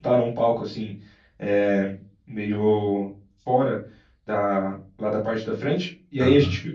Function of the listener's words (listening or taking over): listening